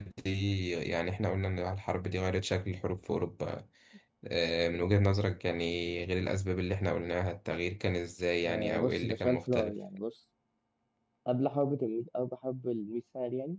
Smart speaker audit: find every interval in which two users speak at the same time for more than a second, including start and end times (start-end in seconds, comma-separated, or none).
8.4-9.7